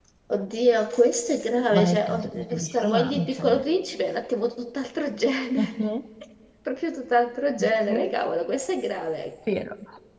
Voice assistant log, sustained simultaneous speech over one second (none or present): present